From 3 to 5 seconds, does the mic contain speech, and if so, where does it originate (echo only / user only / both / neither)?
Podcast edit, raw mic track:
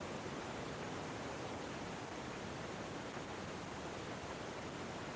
neither